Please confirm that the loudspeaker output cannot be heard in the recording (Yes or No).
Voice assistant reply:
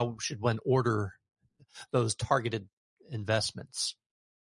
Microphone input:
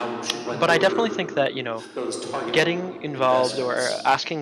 No